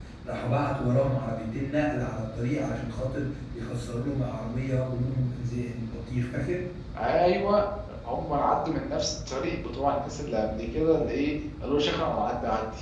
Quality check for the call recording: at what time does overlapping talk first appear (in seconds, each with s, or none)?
none